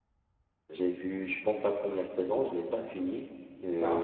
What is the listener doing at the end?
listening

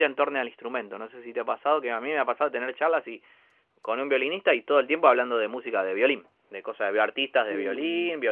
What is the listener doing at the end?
listening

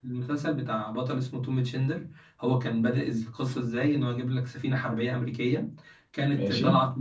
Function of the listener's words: listening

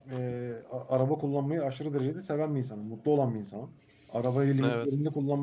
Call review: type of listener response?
listening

